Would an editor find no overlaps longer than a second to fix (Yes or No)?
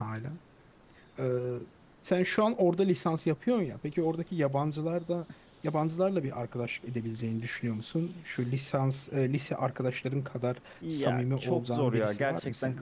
No